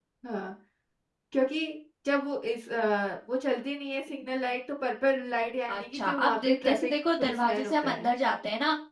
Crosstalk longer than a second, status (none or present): present